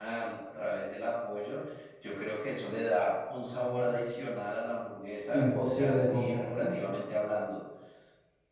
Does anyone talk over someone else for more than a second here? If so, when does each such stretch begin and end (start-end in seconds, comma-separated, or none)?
5.3-6.7